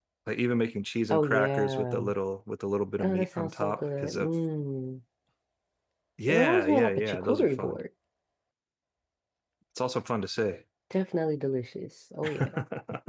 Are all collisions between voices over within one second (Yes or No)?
No